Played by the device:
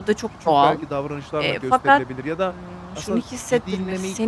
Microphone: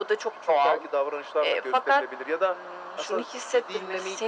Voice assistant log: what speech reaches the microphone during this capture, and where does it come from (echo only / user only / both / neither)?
echo only